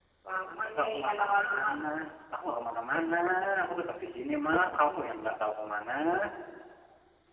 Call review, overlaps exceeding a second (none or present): present